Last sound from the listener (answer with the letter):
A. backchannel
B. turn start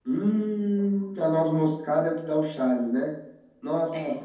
A